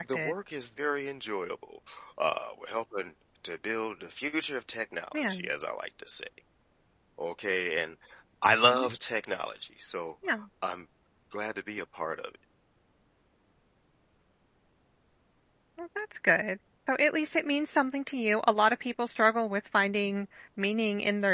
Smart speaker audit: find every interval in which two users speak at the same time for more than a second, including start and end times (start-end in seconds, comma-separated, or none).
none